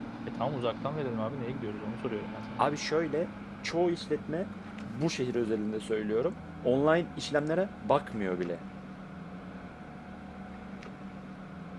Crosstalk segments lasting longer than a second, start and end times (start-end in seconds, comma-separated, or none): none